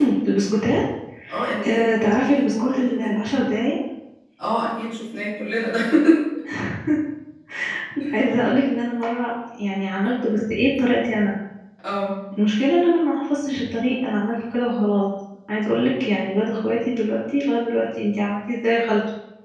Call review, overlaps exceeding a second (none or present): present